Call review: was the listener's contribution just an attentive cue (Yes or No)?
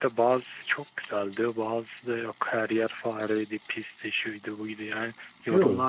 Yes